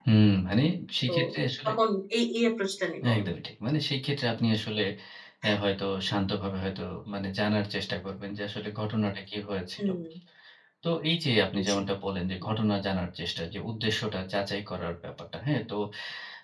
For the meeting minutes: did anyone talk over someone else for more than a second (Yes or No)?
No